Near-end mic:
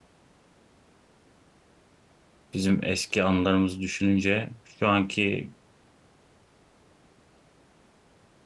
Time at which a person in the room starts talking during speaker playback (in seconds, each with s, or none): 2.5 s